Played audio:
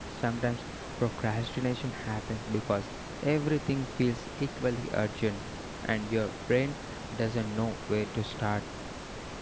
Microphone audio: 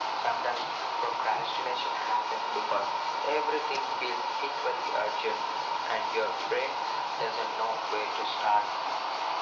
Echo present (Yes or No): Yes